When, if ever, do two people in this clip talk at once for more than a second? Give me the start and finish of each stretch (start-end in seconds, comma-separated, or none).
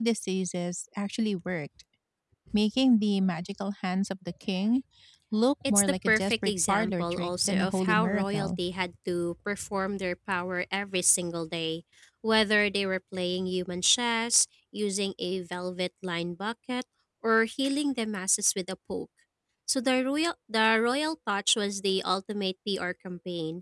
5.7-8.5